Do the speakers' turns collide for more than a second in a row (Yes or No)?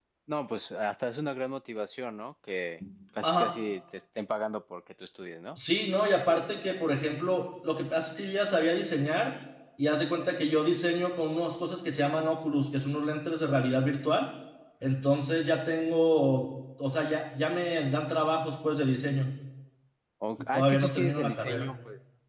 Yes